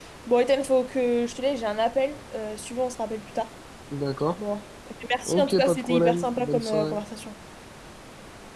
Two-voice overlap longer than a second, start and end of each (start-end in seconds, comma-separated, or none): 5.2-7.0